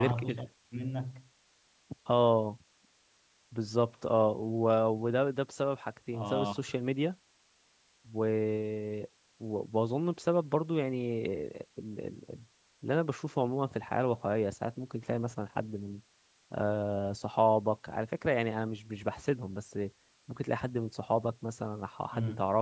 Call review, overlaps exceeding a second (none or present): none